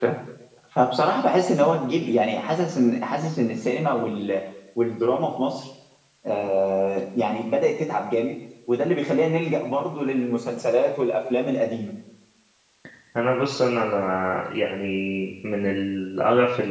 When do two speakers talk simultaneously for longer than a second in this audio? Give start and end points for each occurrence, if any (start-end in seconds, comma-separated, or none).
none